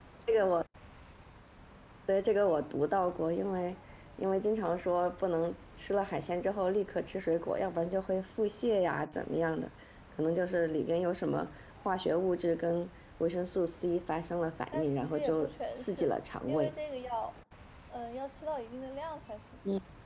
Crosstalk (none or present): present